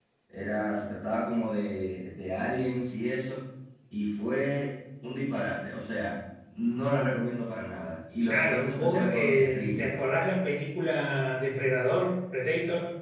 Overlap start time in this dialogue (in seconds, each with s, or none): 8.2 s